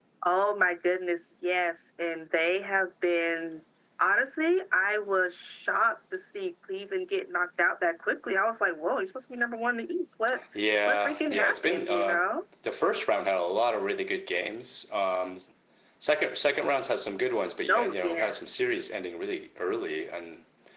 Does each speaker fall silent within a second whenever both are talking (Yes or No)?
No